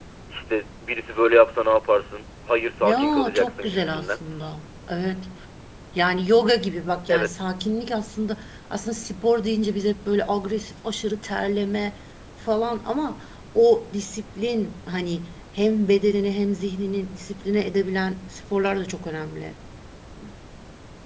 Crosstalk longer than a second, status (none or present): present